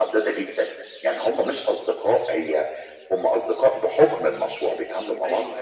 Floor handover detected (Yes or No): Yes